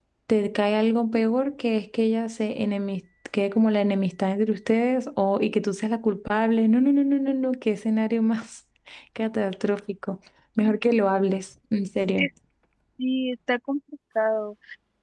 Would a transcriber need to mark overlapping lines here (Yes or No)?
No